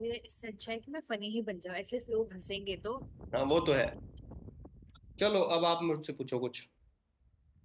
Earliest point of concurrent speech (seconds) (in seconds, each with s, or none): none